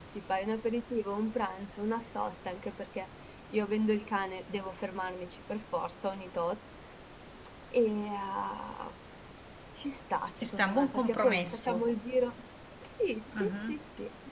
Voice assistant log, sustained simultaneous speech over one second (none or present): present